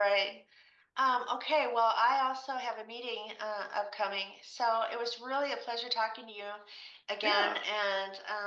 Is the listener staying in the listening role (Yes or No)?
Yes